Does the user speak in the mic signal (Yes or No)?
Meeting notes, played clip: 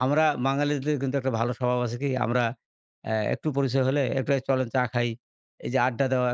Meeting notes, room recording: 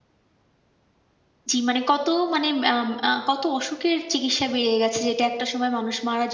Yes